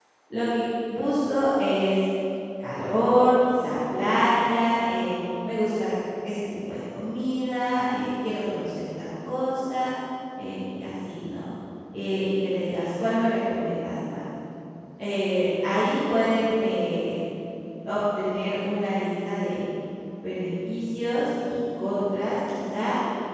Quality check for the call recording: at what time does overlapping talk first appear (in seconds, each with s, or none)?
none